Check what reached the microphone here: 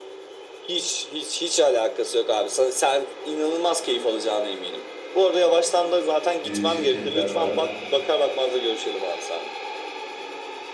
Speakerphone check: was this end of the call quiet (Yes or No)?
No